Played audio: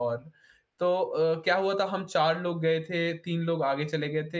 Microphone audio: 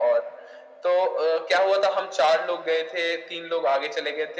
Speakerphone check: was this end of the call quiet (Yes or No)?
Yes